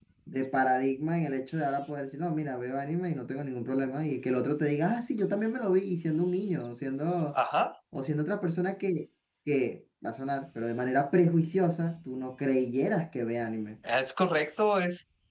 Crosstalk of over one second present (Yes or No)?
No